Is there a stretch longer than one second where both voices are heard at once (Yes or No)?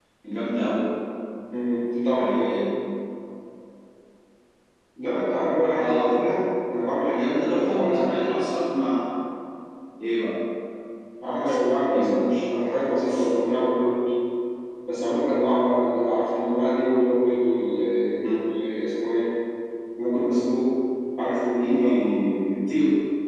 Yes